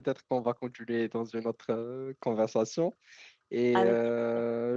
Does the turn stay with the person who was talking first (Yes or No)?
Yes